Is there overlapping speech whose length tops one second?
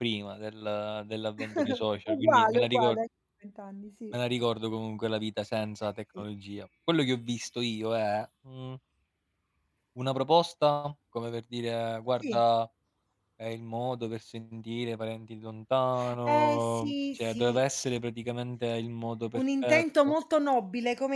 Yes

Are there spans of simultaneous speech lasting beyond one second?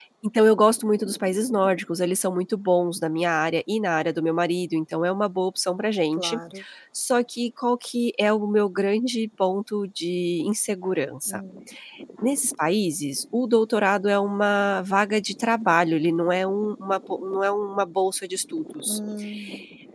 No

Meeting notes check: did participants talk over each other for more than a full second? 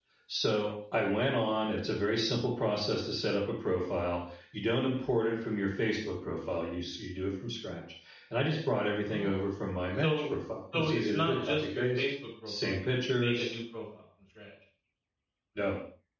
Yes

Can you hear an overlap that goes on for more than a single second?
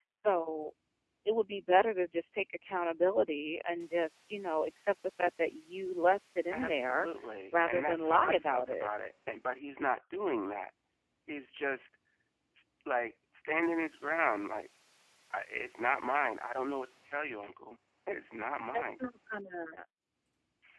Yes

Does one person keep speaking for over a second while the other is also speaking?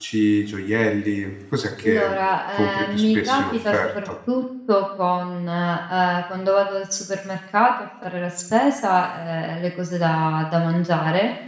Yes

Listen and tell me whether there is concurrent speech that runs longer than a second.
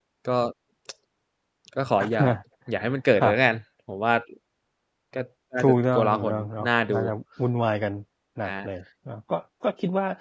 Yes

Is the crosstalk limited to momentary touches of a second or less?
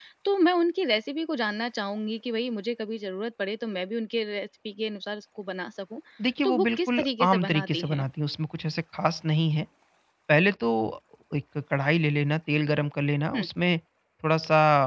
No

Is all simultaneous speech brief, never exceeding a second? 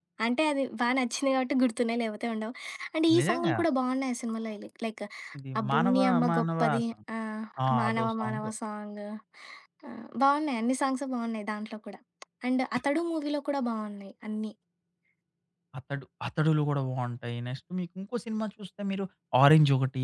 No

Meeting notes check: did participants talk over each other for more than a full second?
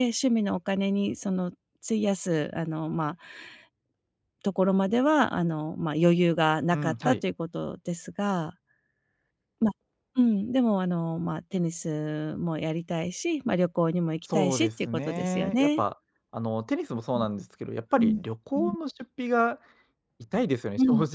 Yes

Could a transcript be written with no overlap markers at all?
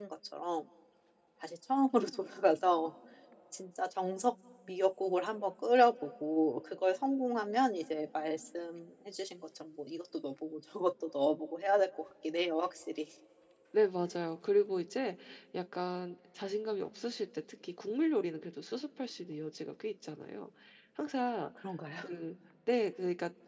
Yes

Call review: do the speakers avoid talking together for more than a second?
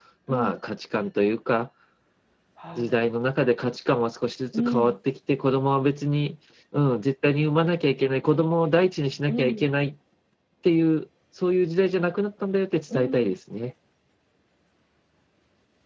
Yes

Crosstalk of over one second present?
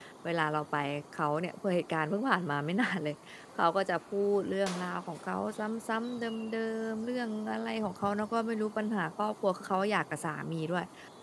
No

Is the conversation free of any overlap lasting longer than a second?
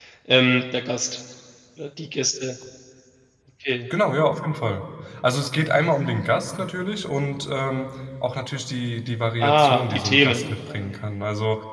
No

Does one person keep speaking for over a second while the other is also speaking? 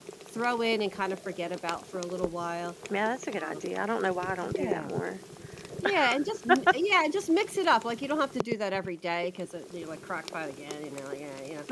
No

